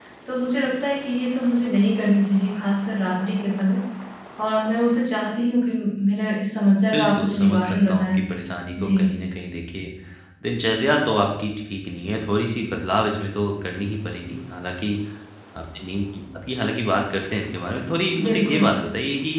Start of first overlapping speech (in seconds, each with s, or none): 6.9 s